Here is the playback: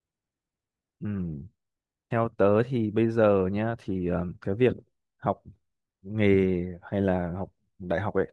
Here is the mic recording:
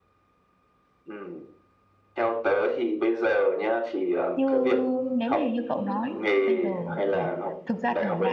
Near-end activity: present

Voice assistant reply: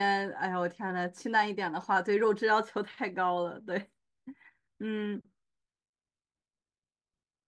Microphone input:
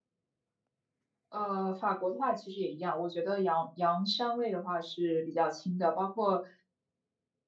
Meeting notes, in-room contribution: present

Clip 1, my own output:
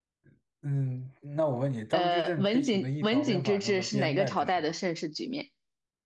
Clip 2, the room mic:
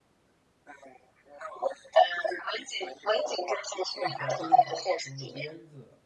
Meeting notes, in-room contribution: present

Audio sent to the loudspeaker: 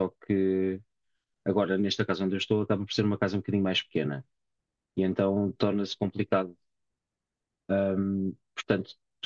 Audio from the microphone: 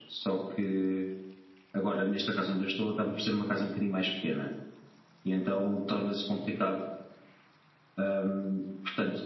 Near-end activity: none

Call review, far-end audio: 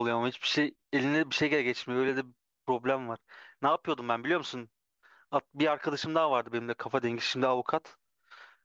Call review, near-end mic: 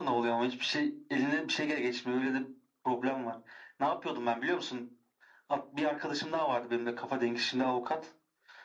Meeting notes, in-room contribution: none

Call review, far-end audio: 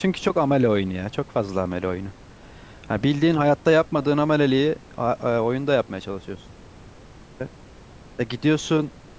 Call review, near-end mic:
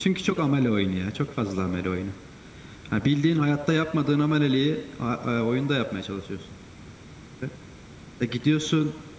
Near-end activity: none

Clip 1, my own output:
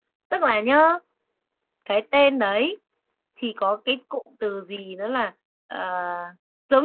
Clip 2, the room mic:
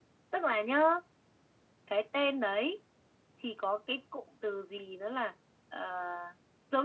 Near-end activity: none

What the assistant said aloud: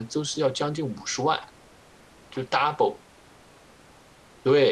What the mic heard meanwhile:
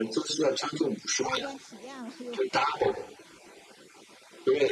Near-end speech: present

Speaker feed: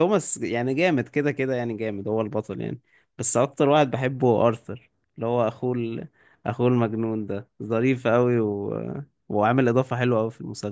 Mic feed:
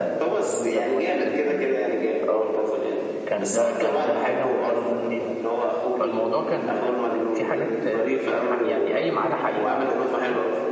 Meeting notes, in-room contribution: present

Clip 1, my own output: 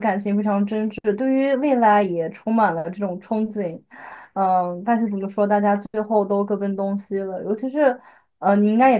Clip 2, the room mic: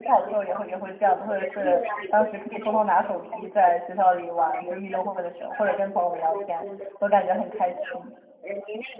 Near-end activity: present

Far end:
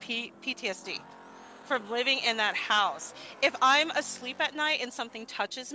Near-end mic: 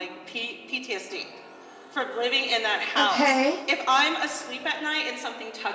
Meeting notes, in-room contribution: present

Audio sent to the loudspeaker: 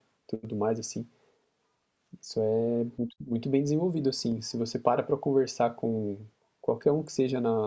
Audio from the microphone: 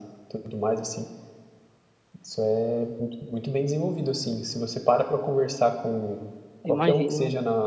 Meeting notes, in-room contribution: present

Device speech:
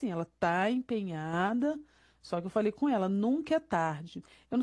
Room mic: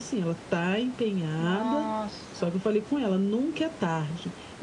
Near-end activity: present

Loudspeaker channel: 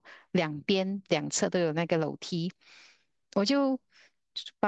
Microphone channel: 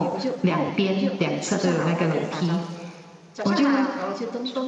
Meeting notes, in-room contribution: present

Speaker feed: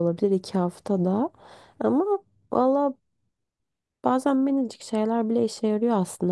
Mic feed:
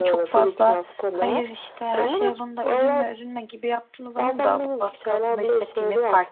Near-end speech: present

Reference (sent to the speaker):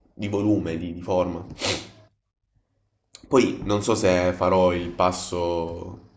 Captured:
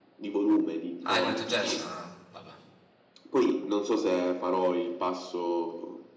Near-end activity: present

